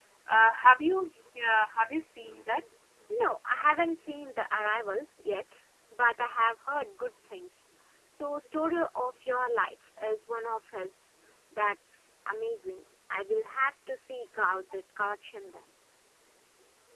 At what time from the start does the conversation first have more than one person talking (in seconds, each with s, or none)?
none